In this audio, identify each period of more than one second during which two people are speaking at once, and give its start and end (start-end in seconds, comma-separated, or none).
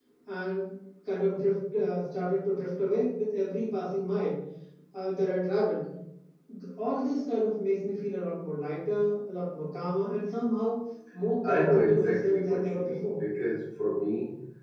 11.4-13.2